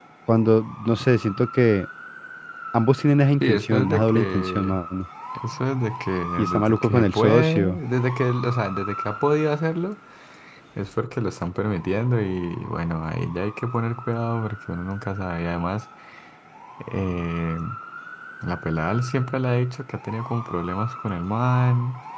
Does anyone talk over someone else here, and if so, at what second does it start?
3.4 s

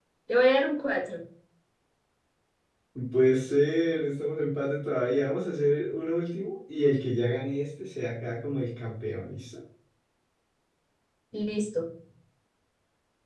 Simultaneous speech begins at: none

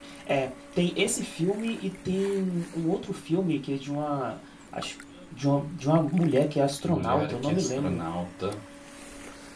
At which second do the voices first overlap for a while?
6.8 s

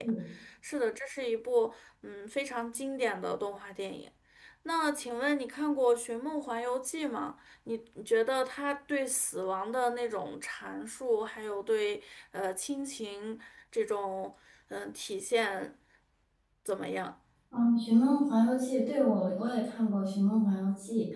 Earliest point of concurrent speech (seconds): none

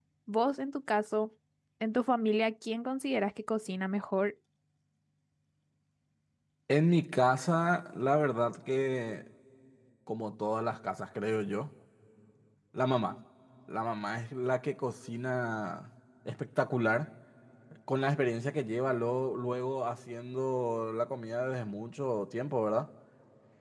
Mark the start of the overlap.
none

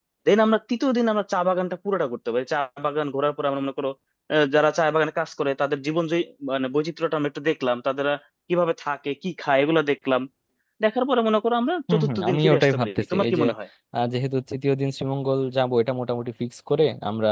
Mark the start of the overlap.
11.9 s

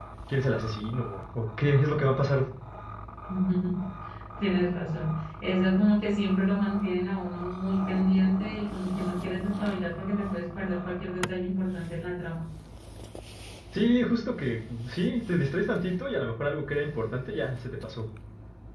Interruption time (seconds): none

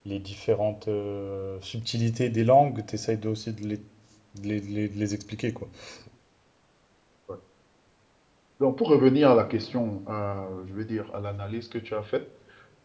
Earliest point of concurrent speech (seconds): none

